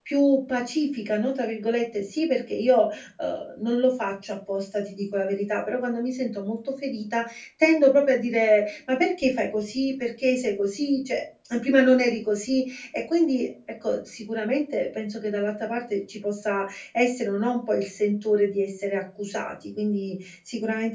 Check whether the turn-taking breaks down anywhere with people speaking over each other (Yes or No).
No